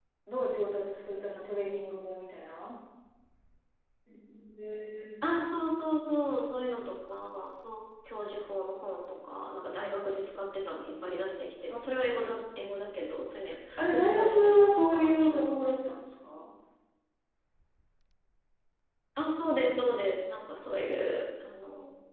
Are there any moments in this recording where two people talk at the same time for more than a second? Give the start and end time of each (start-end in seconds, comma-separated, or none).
13.8-15.8